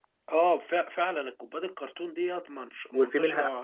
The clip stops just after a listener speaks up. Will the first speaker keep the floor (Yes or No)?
No